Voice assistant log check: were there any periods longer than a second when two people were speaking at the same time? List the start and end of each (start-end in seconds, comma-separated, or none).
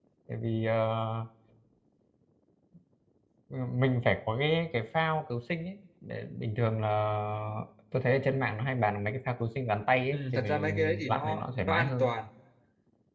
10.1-12.1